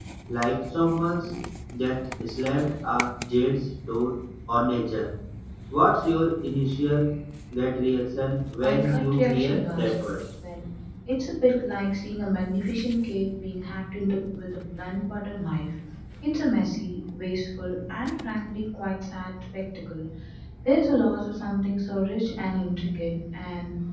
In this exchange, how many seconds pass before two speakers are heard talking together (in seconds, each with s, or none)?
8.6 s